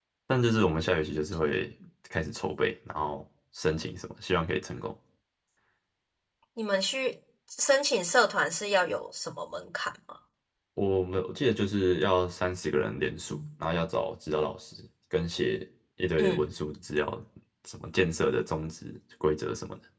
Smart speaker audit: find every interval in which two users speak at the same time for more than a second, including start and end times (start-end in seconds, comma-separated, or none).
none